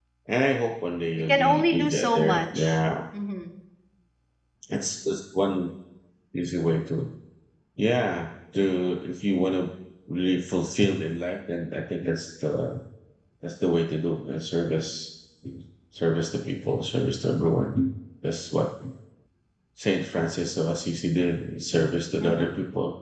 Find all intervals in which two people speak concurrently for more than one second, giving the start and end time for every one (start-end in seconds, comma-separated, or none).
1.3-2.8